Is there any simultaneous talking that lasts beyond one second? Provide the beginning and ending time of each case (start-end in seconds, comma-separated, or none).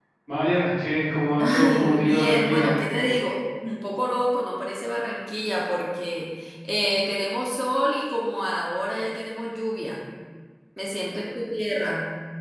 1.4-2.8